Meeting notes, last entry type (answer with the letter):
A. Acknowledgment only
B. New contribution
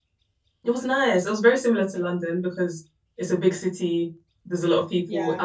A